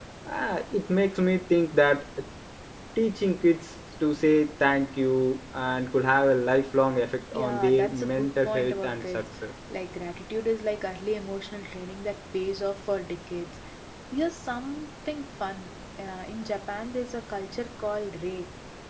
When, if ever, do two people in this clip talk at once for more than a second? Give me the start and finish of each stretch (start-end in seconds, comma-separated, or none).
7.3-9.2